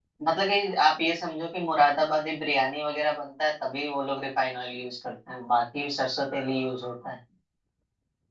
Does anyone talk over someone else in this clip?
No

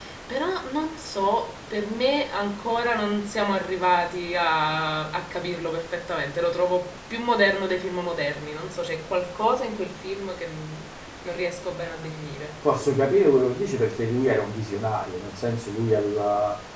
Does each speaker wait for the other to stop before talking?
Yes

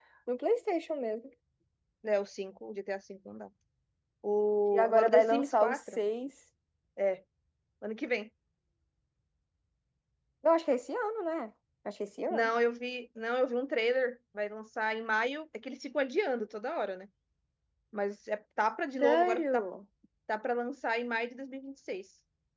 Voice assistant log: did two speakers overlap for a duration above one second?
Yes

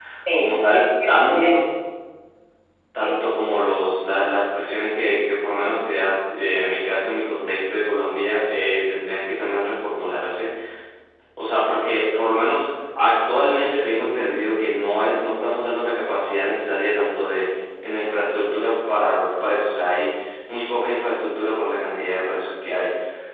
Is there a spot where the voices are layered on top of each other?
Yes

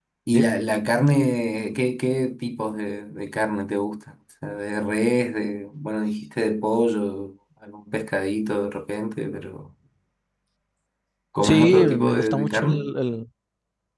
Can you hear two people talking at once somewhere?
Yes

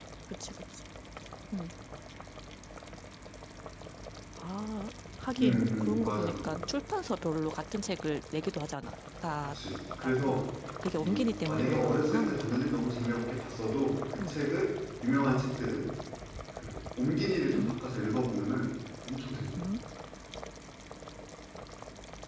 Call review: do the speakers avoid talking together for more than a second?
No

